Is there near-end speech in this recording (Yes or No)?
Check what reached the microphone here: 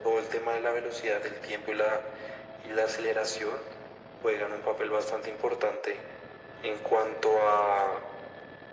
No